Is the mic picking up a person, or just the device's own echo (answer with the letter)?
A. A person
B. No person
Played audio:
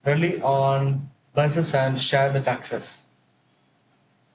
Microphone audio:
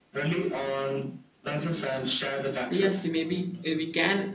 A